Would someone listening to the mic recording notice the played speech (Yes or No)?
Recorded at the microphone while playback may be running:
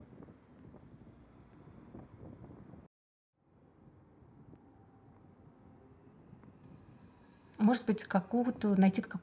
No